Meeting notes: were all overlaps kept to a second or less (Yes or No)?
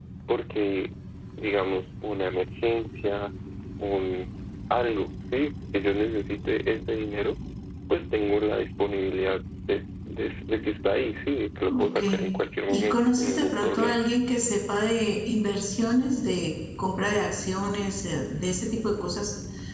No